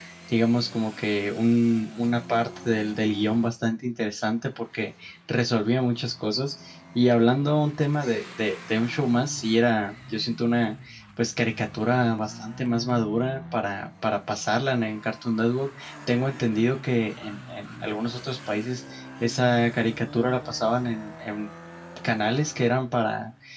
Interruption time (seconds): none

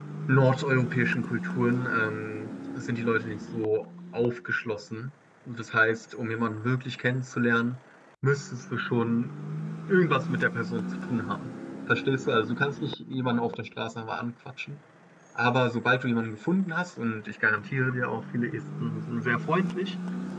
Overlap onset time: none

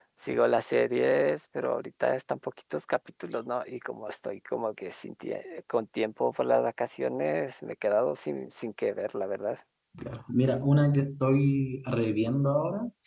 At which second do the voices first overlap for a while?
none

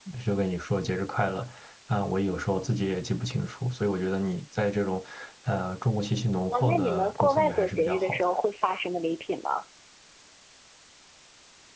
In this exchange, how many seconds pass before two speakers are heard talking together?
6.5 s

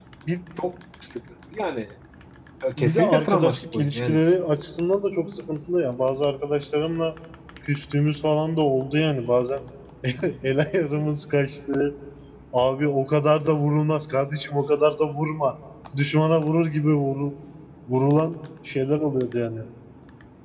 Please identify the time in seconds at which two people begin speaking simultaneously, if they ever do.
2.8 s

